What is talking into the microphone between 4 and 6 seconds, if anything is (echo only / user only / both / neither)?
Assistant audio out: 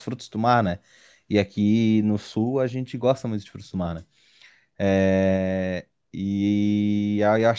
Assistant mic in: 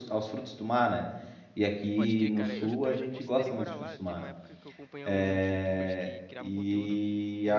both